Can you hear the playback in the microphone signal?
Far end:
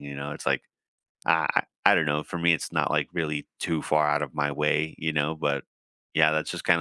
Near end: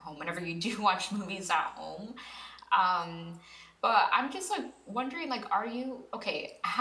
No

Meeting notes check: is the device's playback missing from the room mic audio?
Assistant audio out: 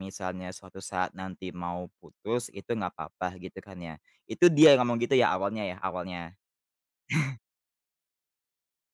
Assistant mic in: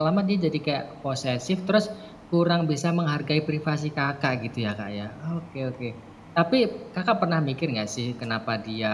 Yes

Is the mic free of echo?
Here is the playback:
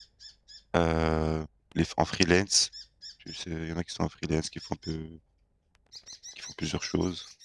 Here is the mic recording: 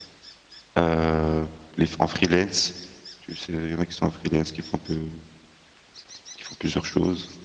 No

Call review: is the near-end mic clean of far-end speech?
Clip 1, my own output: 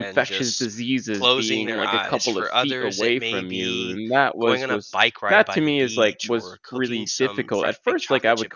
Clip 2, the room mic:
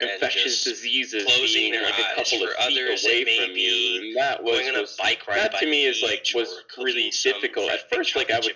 No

